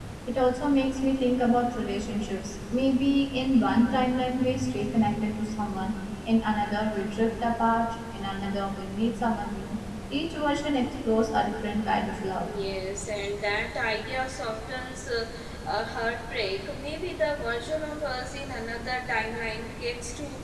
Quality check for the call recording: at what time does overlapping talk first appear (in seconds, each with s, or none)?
none